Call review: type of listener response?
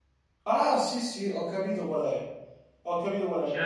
listening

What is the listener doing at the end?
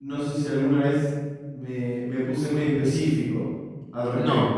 taking over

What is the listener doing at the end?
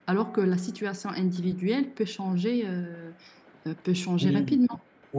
taking over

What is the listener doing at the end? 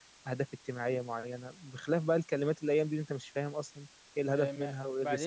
taking over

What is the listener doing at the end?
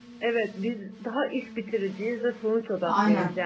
listening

